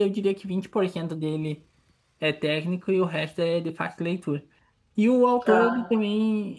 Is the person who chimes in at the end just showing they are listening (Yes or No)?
Yes